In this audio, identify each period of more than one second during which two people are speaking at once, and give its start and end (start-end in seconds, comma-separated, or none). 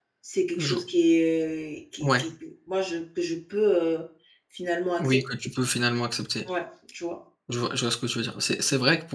none